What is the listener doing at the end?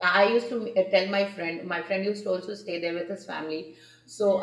listening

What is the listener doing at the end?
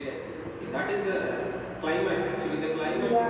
taking over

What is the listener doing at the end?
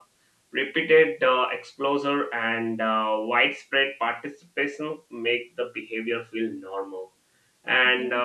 listening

